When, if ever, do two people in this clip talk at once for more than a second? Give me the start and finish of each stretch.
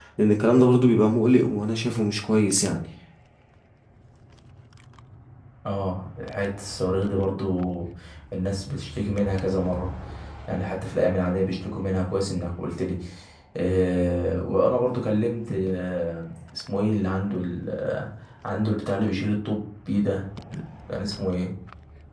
none

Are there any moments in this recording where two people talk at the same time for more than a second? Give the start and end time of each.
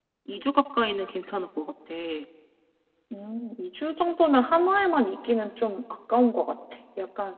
none

